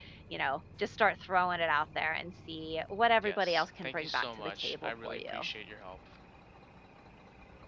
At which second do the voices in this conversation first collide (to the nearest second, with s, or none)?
3 s